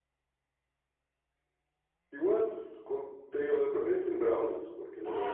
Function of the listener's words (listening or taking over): taking over